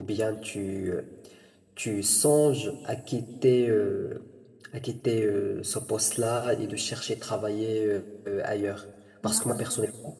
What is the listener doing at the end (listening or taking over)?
listening